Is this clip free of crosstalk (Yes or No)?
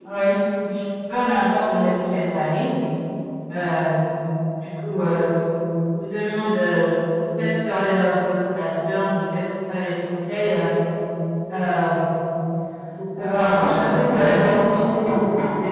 No